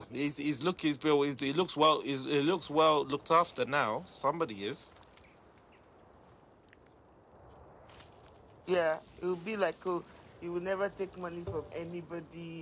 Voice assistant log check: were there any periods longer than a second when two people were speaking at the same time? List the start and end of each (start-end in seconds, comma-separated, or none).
none